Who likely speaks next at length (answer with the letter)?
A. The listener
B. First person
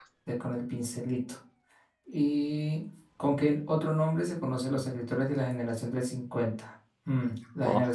B